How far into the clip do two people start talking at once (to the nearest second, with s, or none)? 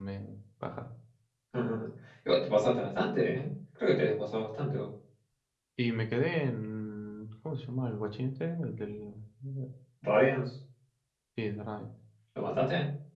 none